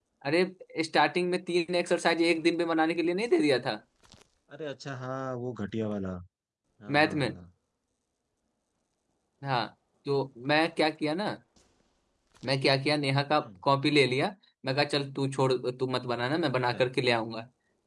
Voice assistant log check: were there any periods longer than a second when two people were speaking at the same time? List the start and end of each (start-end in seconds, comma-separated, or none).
none